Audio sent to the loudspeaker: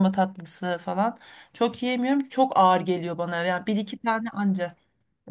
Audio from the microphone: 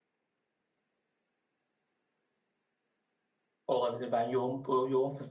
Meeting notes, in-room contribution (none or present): present